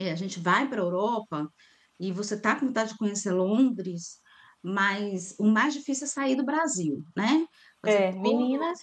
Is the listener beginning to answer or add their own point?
Yes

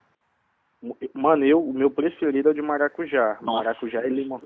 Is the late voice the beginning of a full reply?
Yes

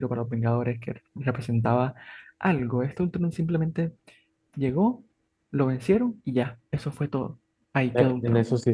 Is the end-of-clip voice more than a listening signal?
Yes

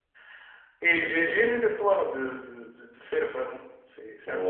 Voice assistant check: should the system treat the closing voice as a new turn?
Yes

